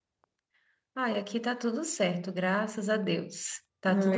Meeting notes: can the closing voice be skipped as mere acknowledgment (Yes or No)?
Yes